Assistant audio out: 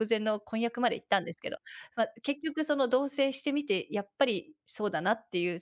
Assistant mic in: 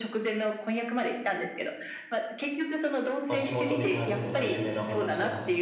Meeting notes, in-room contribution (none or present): present